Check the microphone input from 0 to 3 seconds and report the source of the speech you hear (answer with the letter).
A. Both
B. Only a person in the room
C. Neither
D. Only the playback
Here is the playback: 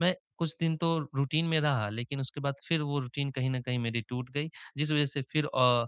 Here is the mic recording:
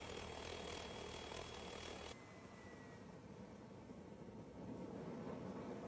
C